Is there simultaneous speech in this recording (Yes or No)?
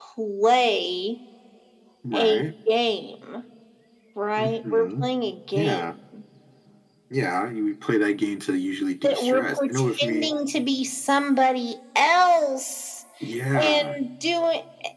Yes